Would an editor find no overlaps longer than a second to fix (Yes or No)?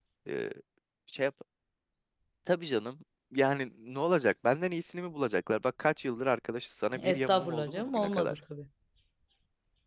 No